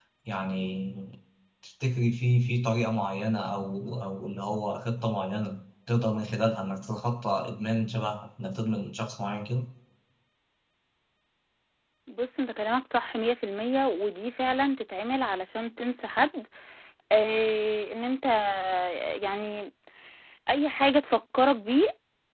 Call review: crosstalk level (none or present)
none